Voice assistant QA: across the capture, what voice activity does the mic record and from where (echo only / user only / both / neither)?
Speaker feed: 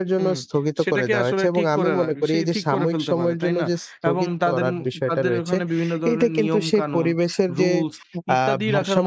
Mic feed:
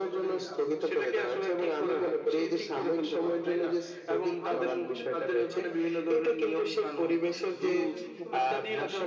both